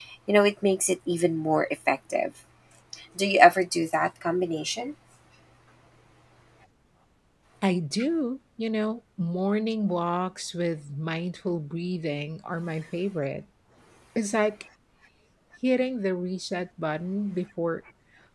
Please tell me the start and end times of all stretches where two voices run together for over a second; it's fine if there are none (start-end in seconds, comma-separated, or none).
none